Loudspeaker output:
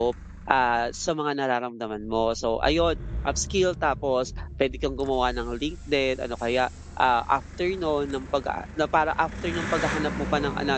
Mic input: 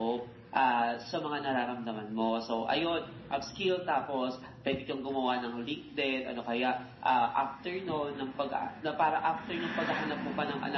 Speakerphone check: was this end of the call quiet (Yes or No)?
Yes